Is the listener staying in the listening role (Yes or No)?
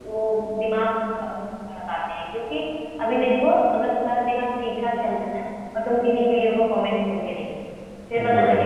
Yes